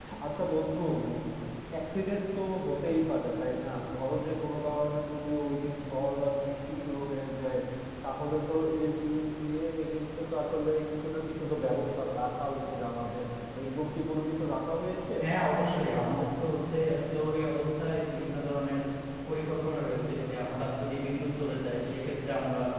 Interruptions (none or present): none